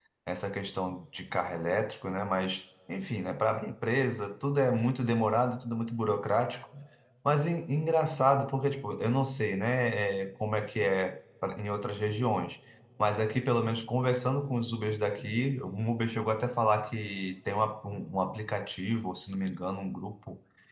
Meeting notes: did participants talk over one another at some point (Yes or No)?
No